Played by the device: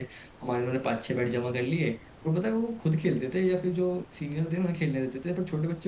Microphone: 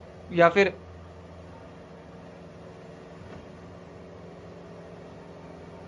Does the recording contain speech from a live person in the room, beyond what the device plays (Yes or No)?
Yes